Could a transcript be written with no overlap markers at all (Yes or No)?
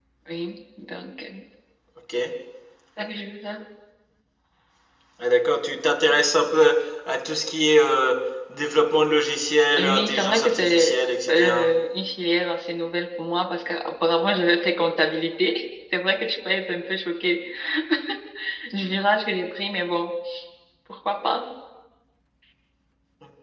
No